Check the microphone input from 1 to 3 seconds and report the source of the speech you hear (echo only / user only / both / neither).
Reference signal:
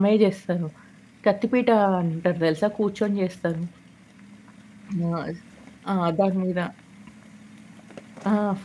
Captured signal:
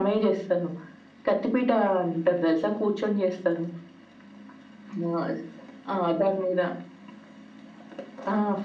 echo only